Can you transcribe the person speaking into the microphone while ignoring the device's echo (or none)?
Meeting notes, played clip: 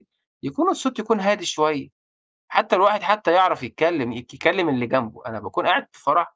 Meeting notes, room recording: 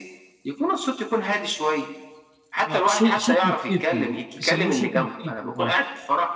آه، صو صوت محيطي، بيسموه صوت محيطي، آه.